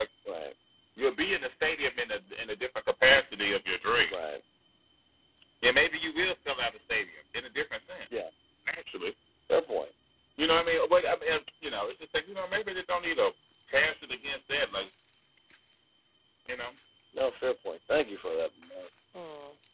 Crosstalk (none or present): none